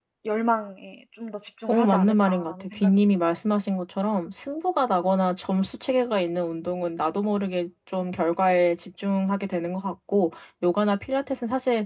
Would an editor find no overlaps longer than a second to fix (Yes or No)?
No